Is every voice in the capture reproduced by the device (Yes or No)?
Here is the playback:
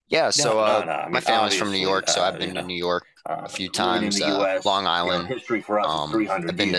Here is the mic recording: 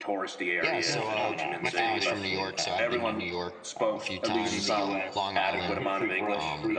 No